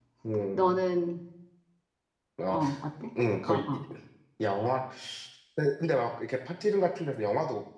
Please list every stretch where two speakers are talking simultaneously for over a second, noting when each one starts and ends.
none

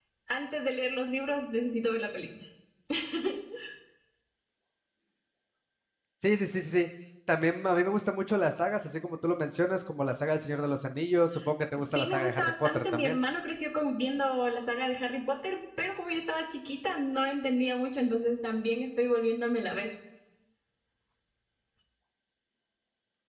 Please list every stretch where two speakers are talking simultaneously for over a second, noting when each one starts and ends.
11.9-13.2

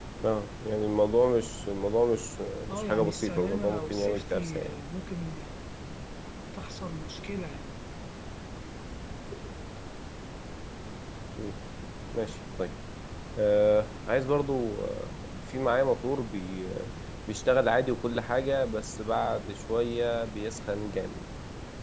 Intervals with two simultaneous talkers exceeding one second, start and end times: 2.7-4.8

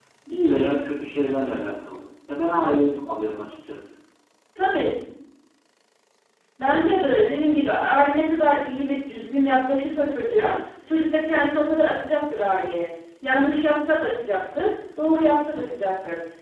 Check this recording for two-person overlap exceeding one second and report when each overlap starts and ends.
none

